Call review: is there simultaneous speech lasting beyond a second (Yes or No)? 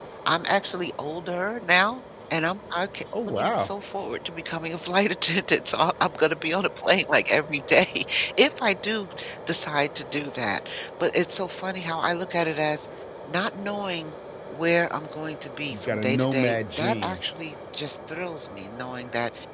Yes